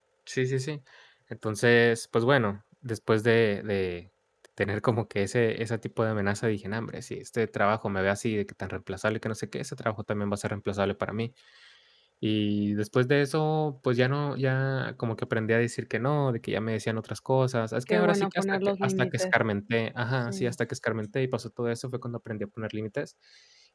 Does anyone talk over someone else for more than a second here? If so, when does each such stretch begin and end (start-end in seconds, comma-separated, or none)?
17.9-19.3